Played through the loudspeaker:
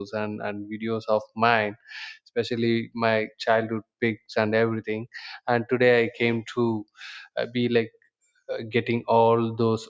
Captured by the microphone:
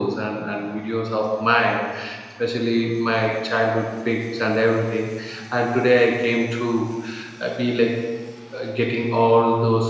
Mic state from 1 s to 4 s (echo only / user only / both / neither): echo only